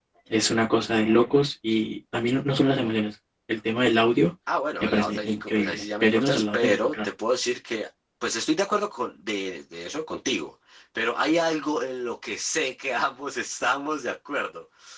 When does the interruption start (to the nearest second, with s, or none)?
5 s